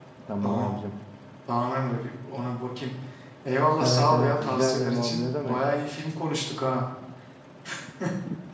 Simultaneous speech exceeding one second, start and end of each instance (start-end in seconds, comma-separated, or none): 3.8-5.6